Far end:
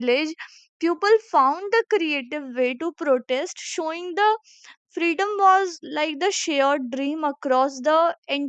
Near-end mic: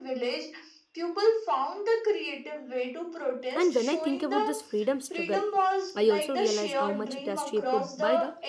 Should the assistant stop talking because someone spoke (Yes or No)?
Yes